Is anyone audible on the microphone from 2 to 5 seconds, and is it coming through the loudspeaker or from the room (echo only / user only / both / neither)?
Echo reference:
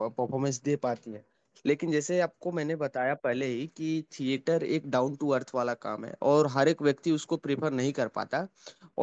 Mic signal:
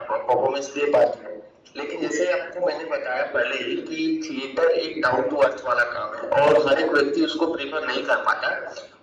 echo only